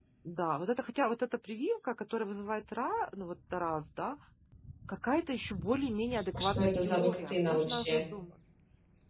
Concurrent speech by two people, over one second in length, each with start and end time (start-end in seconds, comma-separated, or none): 6.3-8.0